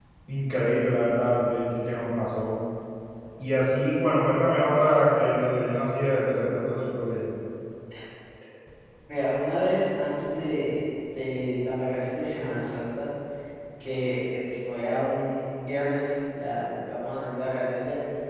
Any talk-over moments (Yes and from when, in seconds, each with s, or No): No